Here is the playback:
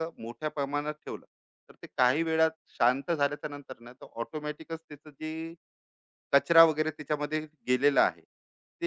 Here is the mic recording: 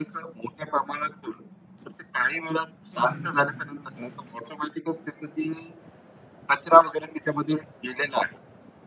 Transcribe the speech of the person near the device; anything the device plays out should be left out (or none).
हं, हं, हं.